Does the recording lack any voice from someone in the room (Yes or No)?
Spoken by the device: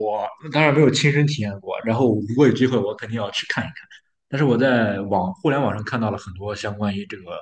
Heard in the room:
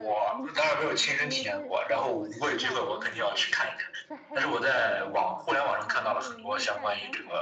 No